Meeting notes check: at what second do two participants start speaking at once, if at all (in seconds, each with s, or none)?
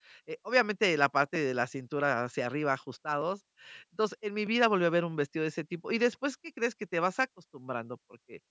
none